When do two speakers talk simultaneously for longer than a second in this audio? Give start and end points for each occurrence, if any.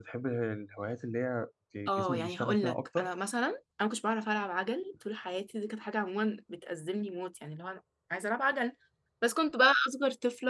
1.9-3.1

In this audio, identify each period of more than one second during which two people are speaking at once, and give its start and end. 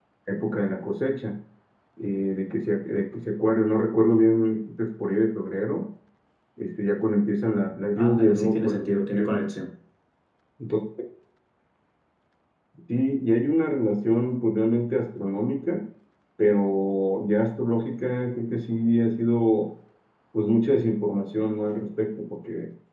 8.0-9.4

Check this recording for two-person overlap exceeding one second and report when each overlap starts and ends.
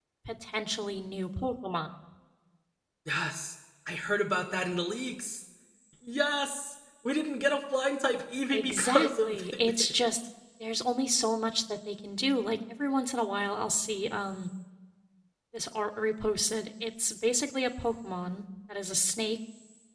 8.5-10.1

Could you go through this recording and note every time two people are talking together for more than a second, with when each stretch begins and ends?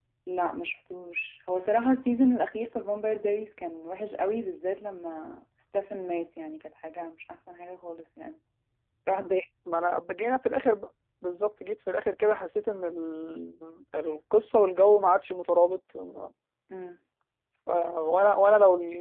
none

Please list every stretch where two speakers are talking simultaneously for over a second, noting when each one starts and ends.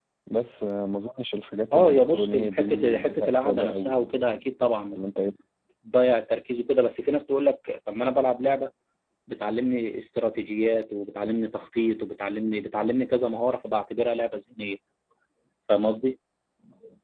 1.7-4.1

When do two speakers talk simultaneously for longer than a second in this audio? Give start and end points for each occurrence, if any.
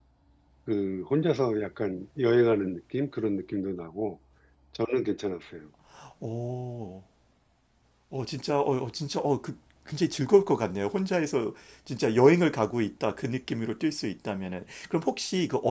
none

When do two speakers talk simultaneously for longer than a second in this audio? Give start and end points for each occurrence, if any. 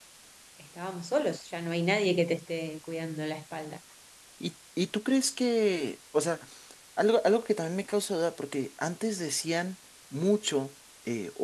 none

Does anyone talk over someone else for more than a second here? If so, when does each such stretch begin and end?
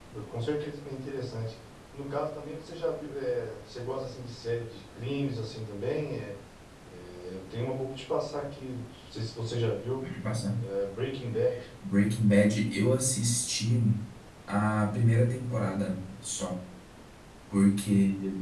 none

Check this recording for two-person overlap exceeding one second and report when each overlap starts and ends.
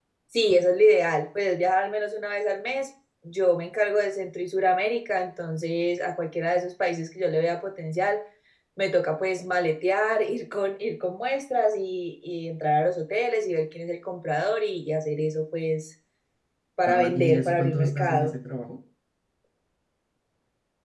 16.9-18.3

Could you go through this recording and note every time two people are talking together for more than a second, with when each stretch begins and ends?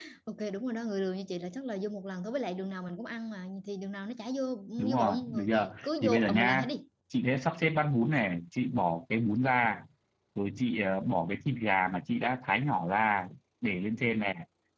4.8-6.7

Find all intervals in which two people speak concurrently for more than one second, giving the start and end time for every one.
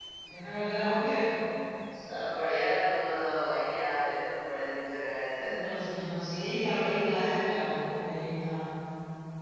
none

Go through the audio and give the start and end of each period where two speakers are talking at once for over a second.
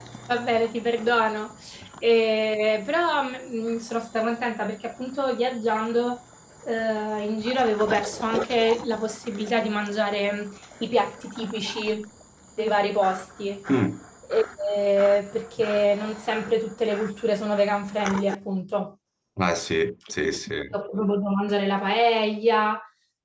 none

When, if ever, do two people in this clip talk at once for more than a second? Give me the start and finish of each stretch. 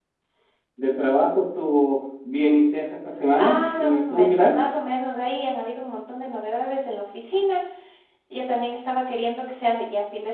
3.4-4.5

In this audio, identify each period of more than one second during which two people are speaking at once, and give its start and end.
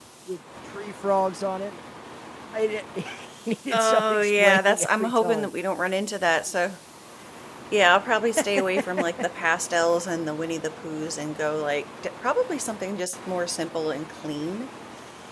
3.7-5.5

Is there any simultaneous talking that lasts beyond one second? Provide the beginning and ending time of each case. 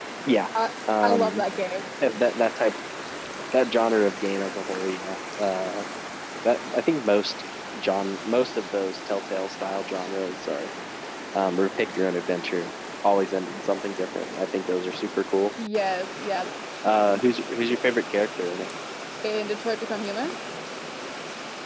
none

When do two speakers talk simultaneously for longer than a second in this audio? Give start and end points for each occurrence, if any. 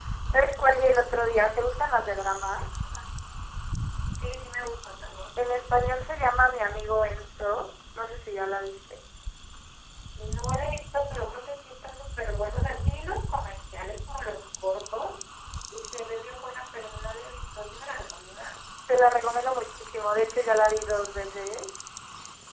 none

